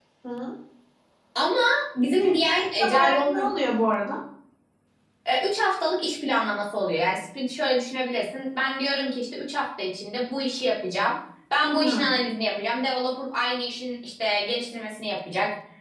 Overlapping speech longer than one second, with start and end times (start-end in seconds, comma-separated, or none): 2.1-3.5